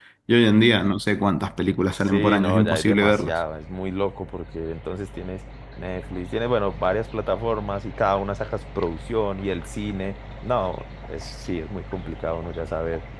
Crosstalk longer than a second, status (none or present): present